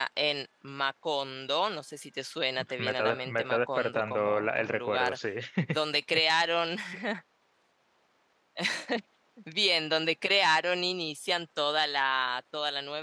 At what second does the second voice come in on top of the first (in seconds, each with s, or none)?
2.8 s